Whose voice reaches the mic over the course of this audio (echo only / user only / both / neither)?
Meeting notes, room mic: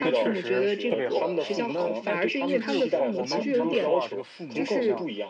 both